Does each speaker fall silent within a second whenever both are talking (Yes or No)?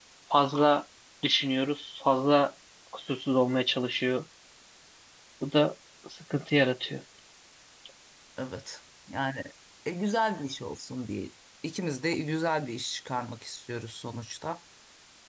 Yes